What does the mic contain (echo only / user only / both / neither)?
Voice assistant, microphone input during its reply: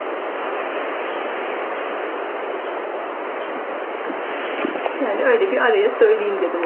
user only